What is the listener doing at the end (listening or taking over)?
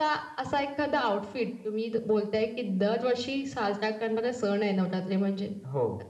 listening